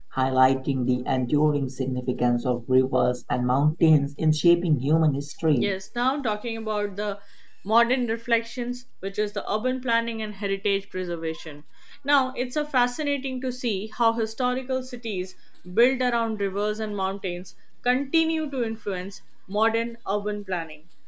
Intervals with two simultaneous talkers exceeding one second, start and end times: none

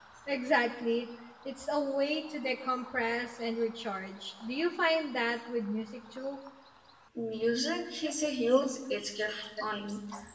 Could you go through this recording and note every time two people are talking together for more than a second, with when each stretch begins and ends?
none

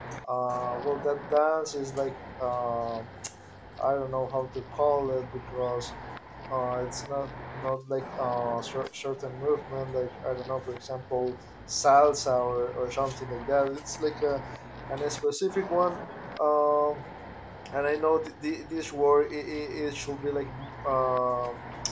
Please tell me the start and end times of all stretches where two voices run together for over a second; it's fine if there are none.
none

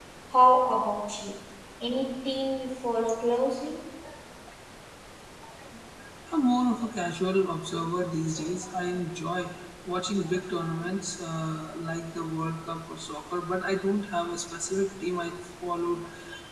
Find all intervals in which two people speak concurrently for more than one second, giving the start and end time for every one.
none

